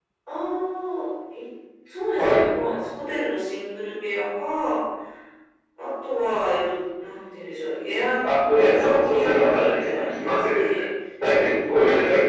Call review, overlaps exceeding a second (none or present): present